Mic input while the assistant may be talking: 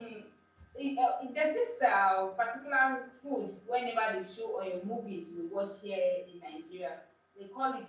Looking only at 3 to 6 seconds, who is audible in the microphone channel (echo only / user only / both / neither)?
user only